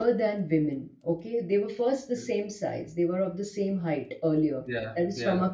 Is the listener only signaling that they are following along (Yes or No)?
Yes